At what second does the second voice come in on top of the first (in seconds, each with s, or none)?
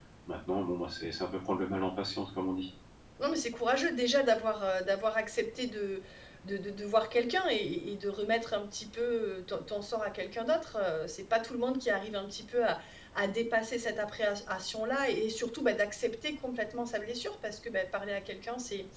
none